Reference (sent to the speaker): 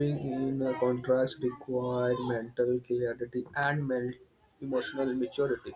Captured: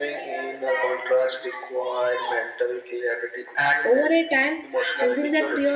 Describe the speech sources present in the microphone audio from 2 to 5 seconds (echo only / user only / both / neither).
both